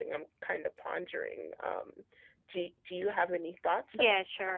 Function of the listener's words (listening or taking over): taking over